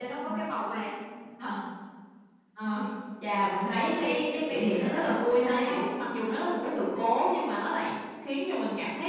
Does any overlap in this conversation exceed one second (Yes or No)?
Yes